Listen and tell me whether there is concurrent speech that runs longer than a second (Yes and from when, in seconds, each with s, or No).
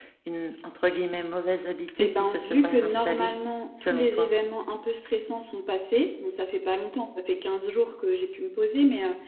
Yes, from 2.0 s